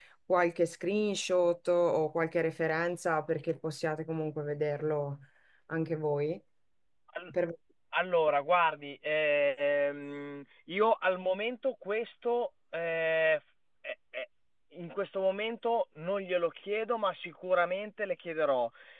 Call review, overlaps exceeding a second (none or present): none